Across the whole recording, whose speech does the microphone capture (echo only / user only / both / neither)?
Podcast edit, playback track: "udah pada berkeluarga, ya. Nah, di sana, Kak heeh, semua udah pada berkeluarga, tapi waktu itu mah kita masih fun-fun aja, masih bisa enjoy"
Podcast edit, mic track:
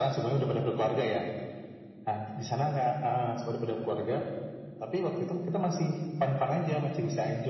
echo only